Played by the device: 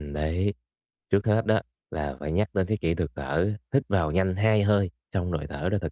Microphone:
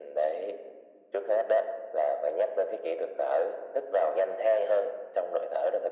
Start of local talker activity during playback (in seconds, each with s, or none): none